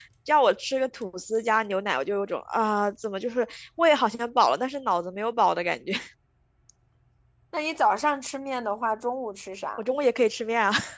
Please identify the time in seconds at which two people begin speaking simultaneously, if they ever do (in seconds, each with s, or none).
none